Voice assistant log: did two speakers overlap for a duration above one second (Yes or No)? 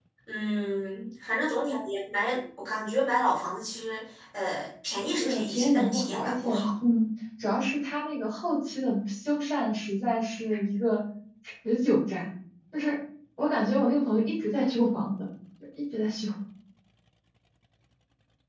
Yes